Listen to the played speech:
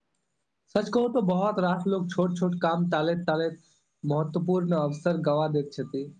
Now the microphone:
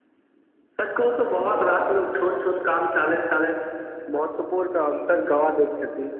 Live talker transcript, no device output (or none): none